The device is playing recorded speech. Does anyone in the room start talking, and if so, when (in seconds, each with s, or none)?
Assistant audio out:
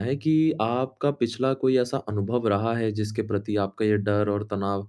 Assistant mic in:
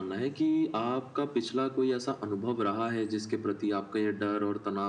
none